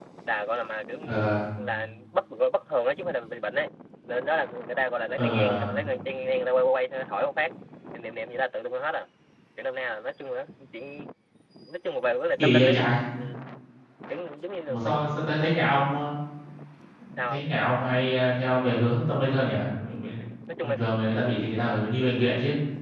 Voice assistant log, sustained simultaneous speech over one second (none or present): none